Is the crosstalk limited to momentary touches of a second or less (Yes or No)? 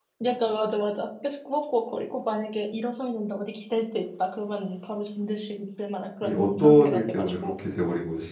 No